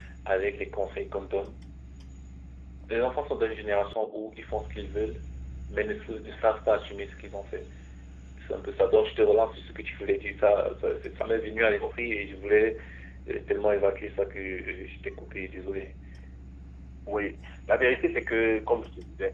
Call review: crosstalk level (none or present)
none